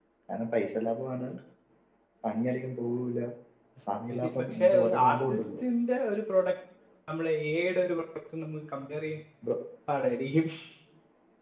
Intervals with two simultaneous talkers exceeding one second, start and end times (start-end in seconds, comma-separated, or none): 4.2-5.4